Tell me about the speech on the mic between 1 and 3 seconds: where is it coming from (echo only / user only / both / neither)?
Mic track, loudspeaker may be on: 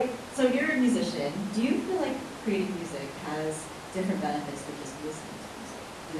echo only